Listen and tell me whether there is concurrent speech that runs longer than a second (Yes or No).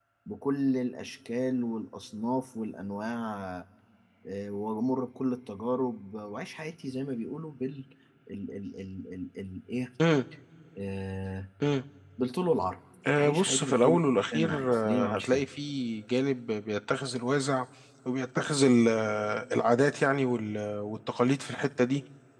Yes